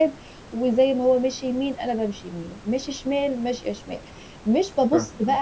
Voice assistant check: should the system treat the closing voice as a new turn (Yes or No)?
No